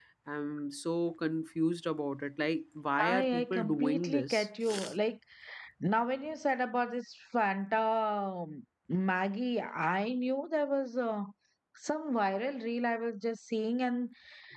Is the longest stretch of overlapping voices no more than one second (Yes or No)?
No